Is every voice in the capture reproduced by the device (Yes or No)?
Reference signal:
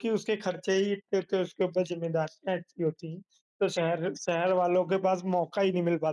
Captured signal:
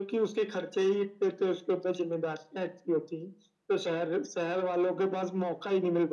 Yes